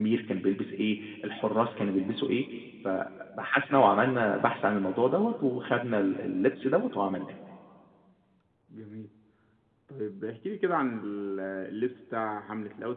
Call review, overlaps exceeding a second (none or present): none